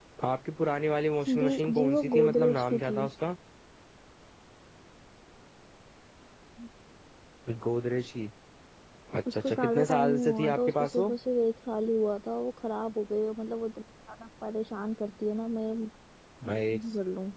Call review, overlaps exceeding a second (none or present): present